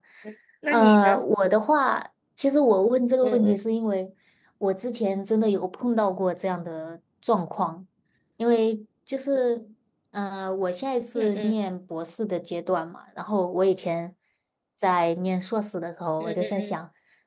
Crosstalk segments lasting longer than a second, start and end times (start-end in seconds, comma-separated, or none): none